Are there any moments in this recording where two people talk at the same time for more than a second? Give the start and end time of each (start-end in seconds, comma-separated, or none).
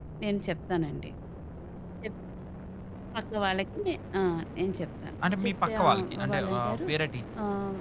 5.4-6.8